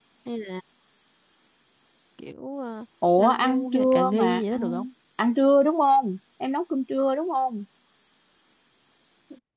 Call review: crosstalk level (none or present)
present